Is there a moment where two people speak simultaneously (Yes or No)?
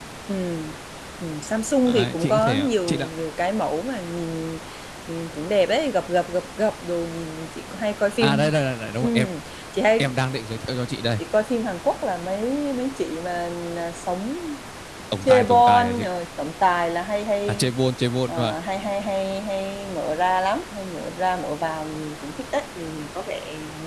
Yes